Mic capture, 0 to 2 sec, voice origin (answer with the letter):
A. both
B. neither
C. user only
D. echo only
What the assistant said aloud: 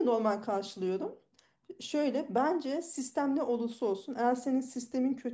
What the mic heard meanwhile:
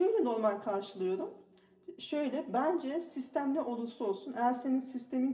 D